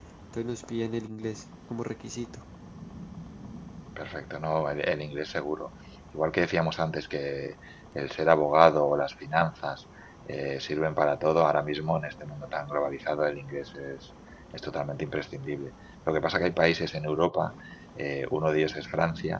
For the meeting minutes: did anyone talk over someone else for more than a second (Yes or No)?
No